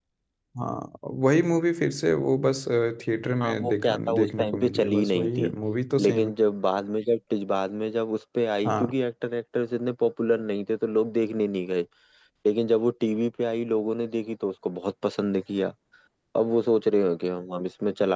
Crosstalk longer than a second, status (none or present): present